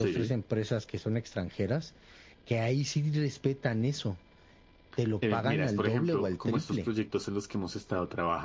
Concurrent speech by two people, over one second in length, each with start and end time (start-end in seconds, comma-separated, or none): 5.3-6.9